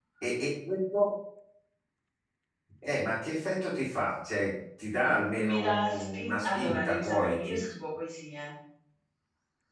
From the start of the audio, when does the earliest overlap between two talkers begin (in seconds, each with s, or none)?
5.0 s